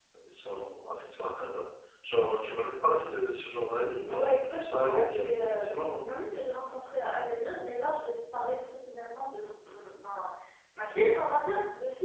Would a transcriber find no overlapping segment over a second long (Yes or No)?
No